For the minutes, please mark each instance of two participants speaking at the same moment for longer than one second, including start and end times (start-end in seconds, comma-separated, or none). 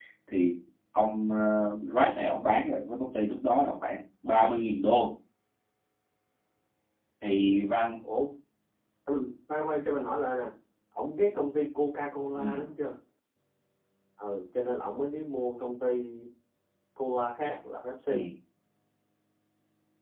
none